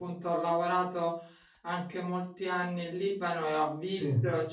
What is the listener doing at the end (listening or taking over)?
listening